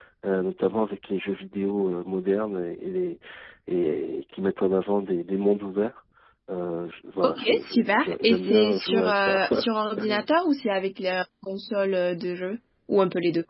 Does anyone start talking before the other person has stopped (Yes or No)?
Yes